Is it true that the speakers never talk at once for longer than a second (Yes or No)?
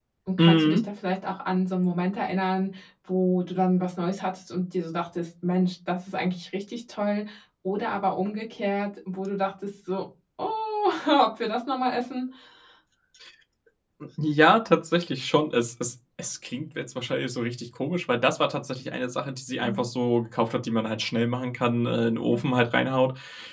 Yes